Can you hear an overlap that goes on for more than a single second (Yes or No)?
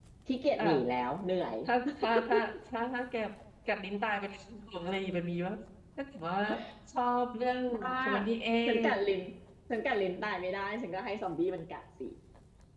No